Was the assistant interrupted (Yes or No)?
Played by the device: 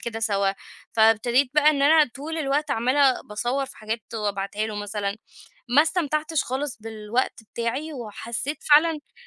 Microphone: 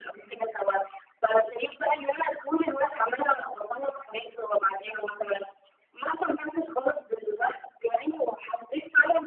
No